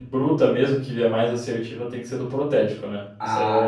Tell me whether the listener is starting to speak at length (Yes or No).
Yes